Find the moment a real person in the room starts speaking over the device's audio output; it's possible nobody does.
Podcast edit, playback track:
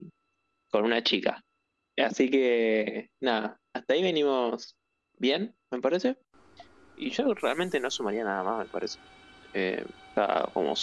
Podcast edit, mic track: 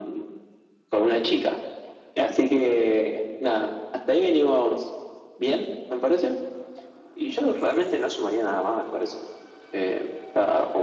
none

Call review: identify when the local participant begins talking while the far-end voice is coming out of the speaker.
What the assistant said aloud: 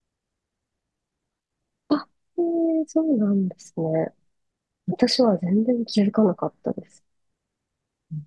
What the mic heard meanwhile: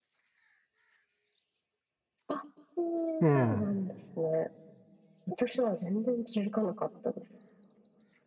3.2 s

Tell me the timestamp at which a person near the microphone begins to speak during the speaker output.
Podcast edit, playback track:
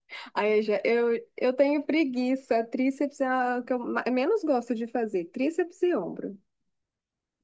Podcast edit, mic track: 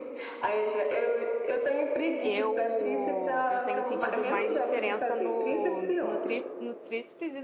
2.2 s

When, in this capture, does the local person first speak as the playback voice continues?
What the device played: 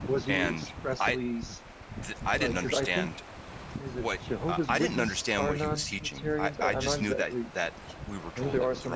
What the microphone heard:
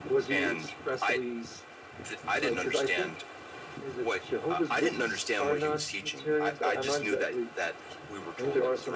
none

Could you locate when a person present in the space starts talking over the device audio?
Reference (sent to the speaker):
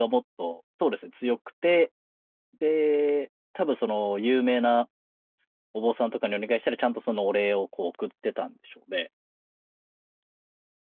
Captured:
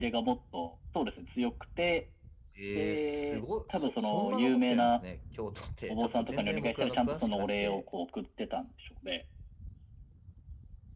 2.5 s

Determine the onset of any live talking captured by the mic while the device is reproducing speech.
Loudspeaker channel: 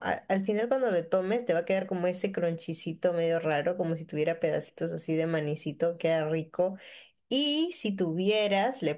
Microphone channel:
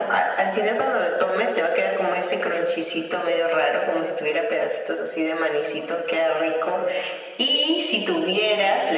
none

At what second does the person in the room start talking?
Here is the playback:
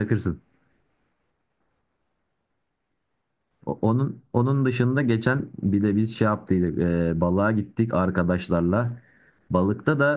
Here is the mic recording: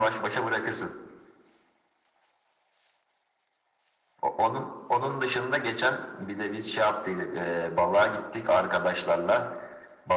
none

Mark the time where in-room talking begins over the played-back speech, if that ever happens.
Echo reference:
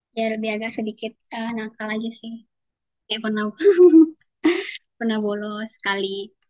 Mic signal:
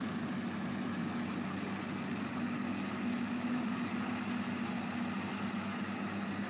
none

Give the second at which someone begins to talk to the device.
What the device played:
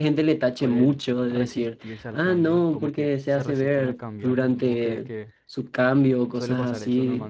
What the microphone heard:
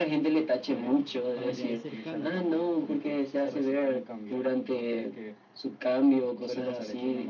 1.3 s

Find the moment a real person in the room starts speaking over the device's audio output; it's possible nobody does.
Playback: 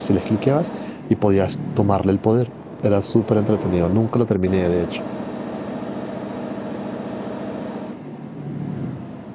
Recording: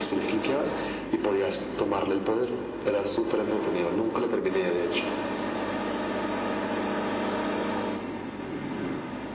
none

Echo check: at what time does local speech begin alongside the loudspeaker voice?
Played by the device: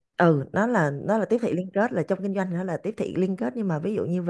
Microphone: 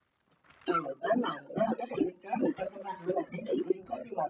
none

